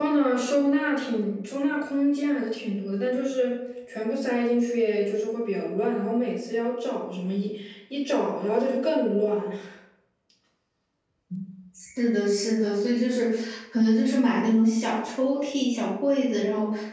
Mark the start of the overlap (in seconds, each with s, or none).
none